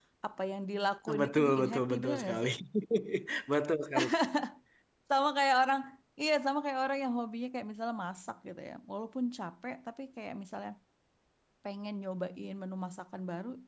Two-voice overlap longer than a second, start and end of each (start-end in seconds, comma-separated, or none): 1.2-2.5